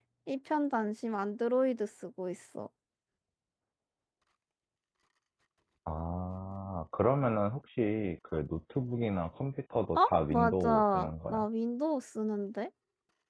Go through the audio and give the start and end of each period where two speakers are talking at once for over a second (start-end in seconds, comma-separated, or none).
9.9-11.4